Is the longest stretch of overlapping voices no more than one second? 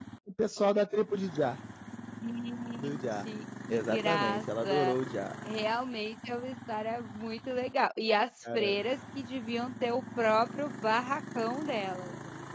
No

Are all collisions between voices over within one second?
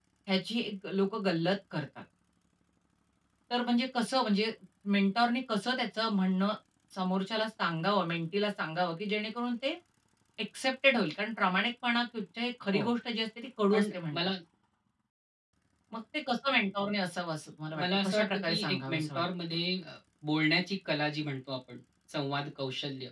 No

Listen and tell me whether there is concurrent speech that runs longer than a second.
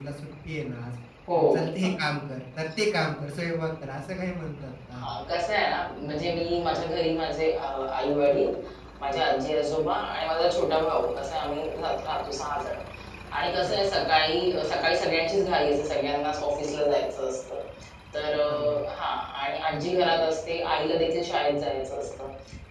No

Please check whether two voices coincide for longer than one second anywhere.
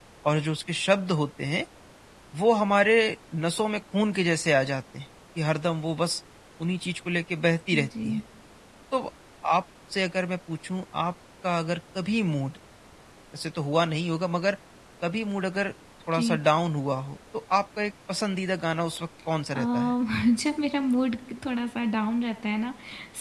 No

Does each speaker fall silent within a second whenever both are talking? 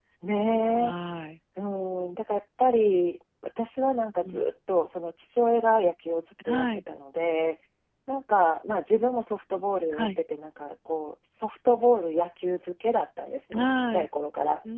Yes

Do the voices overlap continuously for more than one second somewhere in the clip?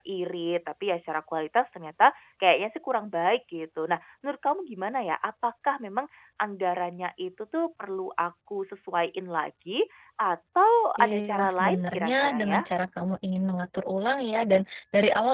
Yes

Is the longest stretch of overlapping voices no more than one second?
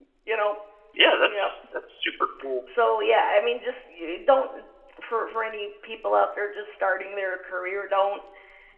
Yes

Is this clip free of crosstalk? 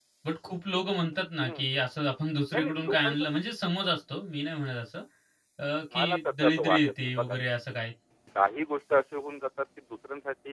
No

